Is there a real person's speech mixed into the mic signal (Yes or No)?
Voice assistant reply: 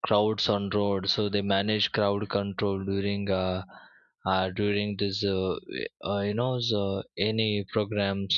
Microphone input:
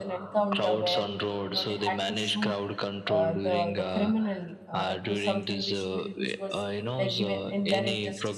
Yes